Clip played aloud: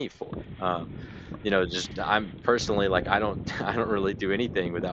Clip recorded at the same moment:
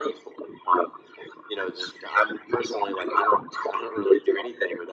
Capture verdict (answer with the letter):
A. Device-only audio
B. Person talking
A